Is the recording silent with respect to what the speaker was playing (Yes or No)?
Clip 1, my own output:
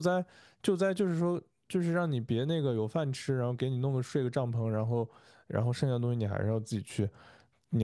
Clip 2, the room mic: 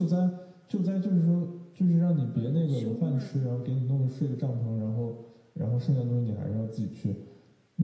No